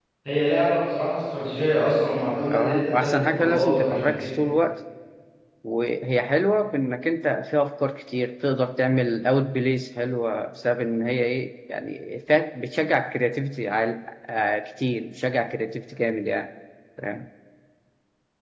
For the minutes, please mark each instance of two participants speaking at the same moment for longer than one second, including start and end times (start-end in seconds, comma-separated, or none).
2.5-4.2